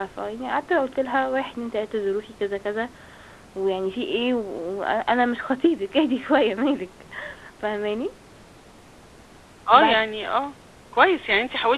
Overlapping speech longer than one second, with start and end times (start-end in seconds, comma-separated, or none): none